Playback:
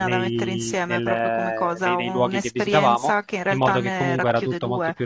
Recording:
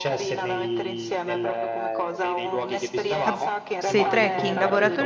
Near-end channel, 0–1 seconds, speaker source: echo only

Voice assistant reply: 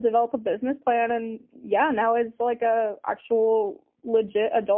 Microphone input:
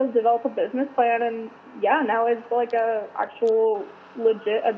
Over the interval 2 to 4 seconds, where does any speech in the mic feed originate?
echo only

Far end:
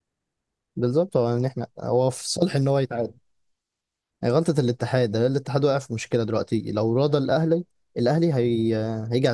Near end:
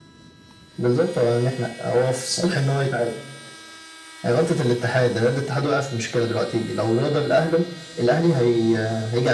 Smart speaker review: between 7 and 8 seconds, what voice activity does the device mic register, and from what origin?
echo only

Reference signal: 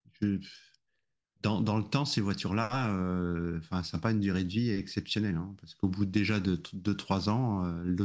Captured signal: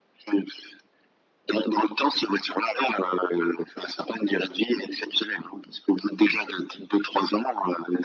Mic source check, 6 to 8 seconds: echo only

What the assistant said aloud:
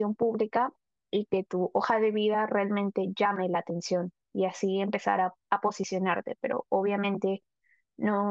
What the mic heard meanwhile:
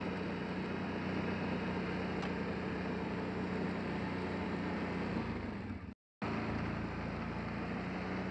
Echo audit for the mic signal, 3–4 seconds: neither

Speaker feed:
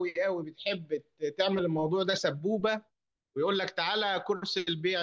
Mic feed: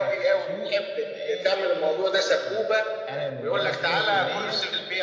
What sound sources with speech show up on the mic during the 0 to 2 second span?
both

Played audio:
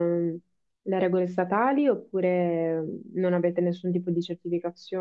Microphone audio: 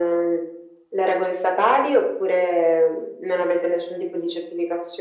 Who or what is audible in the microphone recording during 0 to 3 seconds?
echo only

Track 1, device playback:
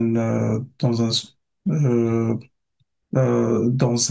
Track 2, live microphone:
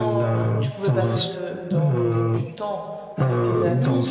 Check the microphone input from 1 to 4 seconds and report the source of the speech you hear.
both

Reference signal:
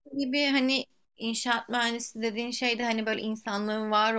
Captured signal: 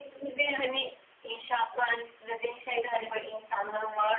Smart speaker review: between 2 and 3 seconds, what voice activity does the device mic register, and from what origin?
echo only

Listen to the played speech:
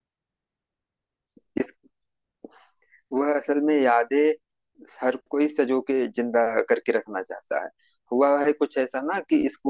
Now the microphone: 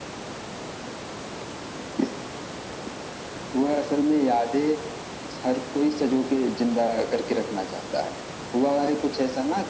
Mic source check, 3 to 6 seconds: echo only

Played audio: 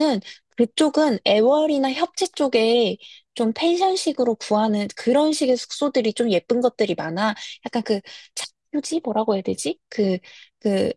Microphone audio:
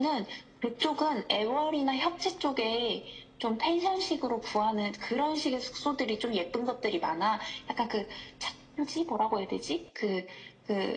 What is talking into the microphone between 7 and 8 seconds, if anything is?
echo only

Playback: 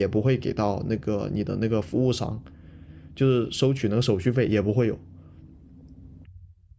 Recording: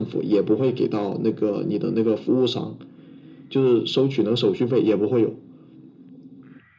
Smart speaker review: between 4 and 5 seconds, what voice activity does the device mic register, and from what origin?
echo only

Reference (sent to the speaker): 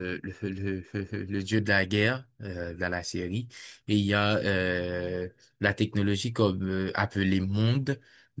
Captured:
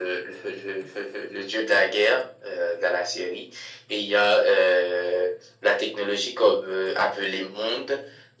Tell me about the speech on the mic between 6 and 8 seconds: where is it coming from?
echo only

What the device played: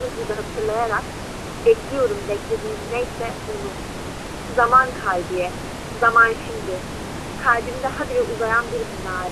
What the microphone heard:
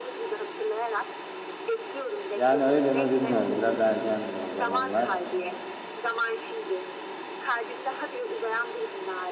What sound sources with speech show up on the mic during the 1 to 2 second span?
echo only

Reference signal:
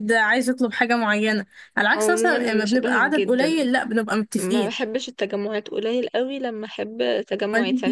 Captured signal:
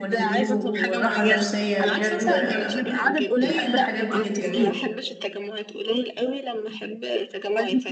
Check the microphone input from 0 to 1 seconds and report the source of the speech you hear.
both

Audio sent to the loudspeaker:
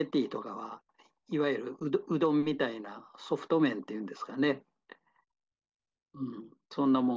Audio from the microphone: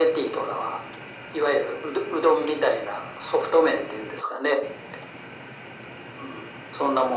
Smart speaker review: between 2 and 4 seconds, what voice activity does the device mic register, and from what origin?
echo only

